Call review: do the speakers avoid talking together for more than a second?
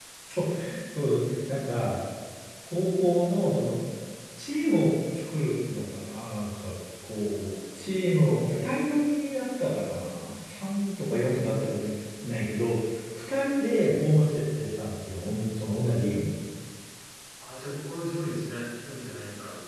Yes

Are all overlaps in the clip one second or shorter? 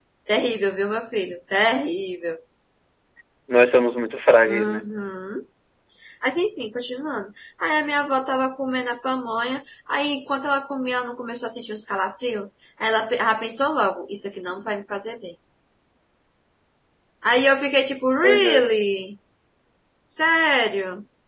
Yes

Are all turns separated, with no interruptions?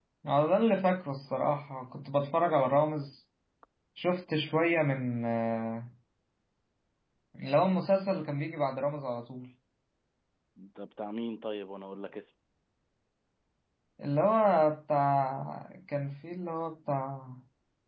Yes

